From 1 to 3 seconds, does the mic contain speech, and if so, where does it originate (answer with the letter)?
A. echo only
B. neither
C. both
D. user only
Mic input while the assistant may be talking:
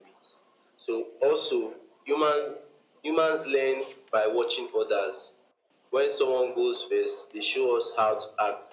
A